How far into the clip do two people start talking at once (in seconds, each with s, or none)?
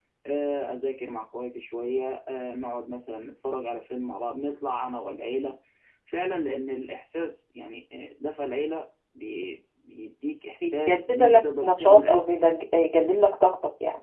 10.6 s